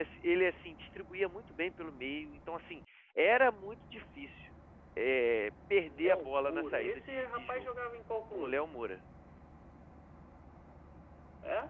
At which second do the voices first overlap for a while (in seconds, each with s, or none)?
5.9 s